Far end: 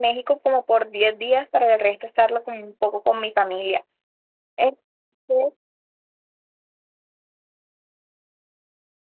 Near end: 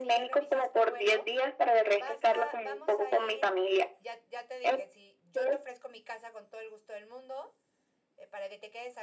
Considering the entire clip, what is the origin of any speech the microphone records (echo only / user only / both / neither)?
both